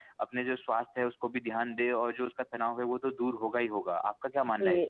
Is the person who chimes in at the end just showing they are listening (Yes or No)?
No